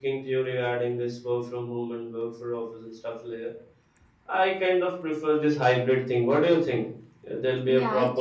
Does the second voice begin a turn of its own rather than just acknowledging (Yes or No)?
Yes